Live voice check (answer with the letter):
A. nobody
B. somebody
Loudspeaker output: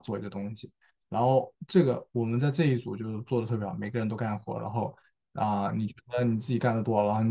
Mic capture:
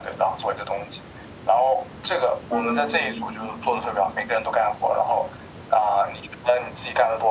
B